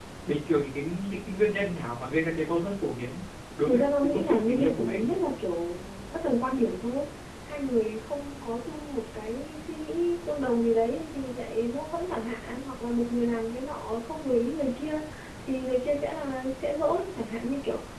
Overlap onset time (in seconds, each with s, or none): 3.6 s